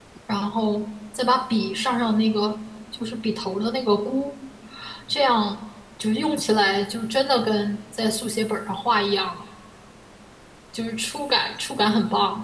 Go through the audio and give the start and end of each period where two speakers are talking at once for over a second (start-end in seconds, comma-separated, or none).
none